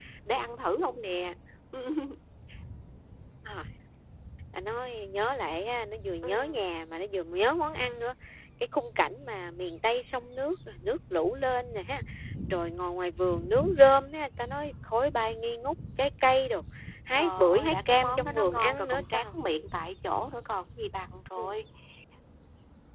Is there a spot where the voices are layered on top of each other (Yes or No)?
Yes